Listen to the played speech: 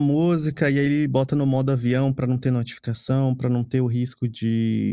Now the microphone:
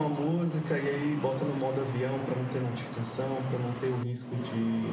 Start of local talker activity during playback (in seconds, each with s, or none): none